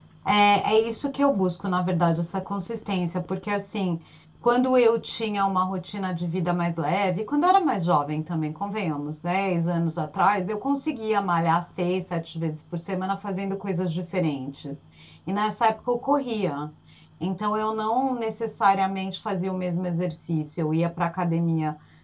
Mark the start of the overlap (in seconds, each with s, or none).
none